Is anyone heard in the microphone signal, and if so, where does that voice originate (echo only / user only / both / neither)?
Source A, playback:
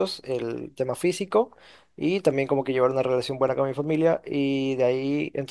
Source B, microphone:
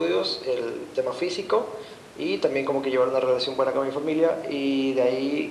echo only